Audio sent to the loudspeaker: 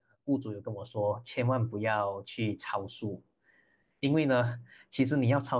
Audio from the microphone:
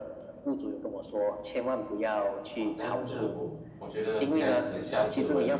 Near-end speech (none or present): present